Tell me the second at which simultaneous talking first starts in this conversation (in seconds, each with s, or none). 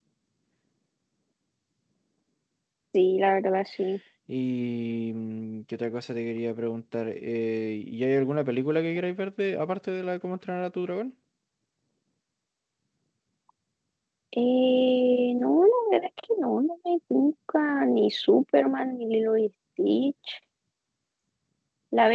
none